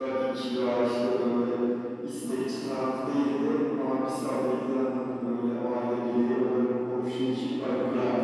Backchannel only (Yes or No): Yes